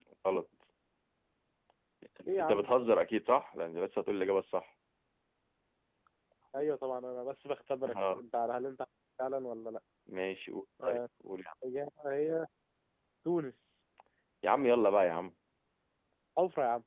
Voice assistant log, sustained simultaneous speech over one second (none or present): none